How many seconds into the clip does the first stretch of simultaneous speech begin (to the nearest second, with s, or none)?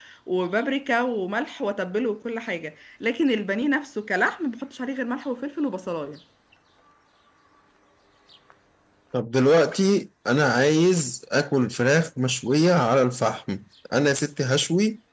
none